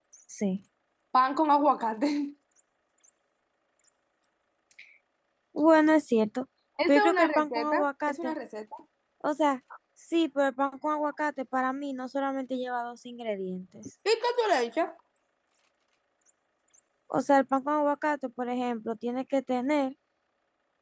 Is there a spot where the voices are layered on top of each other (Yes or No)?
Yes